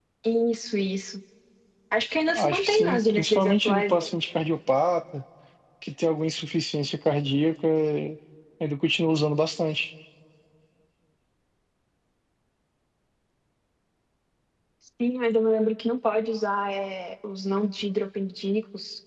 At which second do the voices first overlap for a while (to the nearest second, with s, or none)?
2 s